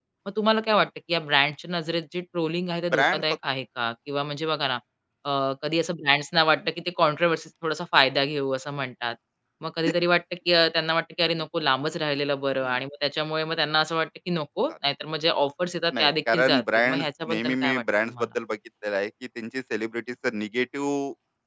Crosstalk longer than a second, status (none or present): present